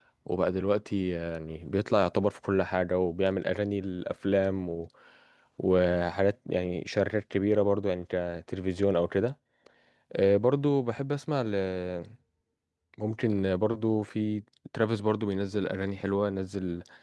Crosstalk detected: No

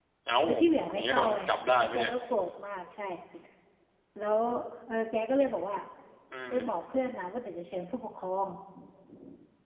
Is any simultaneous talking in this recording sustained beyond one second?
Yes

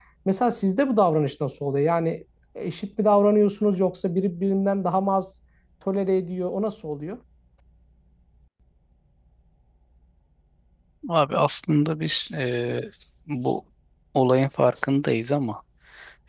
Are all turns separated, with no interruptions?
Yes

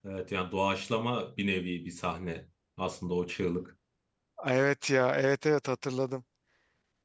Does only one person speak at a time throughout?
Yes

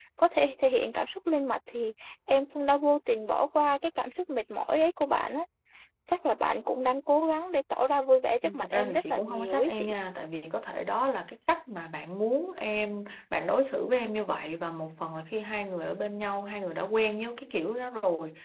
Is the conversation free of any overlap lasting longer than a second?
No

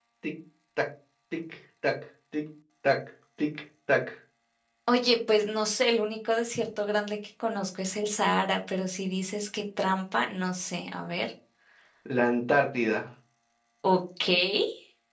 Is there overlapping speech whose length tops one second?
No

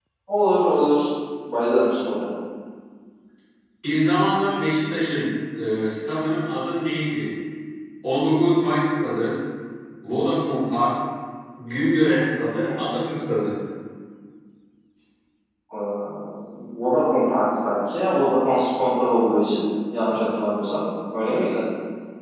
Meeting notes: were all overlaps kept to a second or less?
Yes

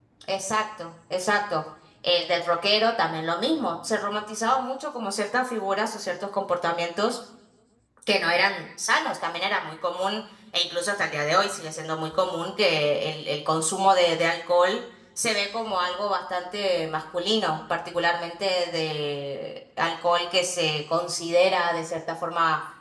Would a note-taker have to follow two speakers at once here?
No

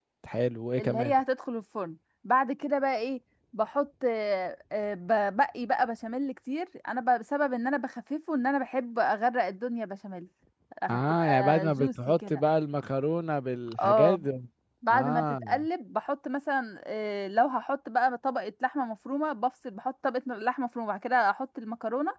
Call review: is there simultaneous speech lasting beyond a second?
Yes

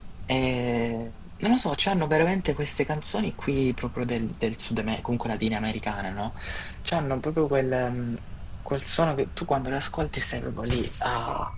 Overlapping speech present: No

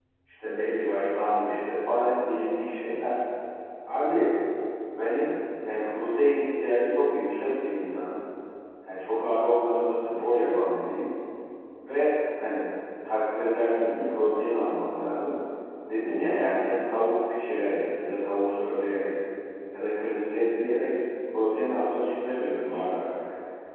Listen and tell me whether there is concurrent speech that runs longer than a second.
No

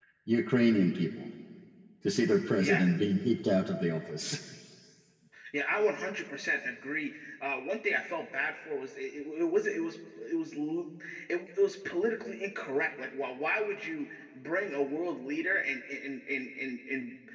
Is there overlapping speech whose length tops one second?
No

